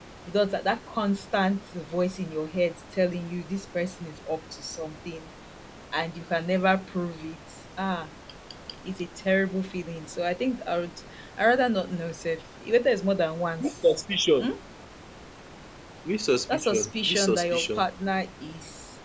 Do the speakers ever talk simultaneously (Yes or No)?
Yes